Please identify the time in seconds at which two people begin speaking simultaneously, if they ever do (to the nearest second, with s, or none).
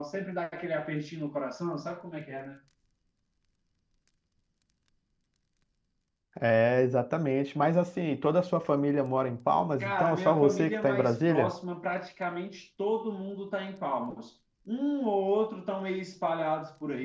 10 s